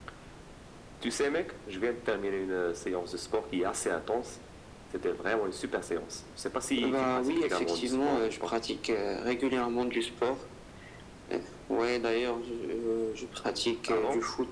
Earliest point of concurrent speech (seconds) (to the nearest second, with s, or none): 7 s